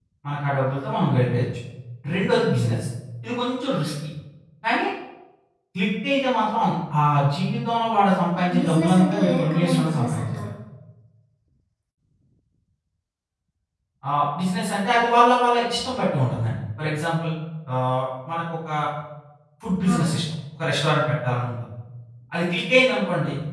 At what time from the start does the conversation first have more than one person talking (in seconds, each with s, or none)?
8.4 s